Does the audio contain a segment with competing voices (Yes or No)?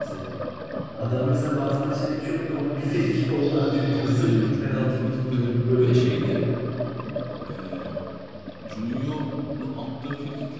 Yes